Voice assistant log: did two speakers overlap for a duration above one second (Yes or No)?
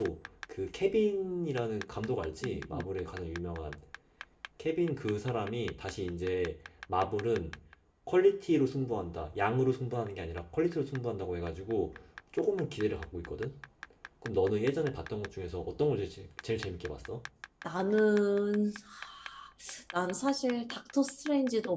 No